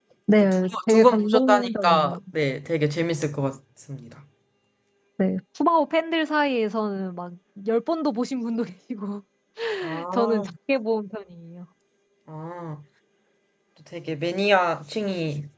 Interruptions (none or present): present